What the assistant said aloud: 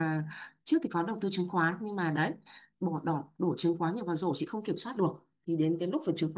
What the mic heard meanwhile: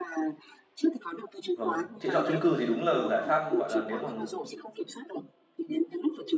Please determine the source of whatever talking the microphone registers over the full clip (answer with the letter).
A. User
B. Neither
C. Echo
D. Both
D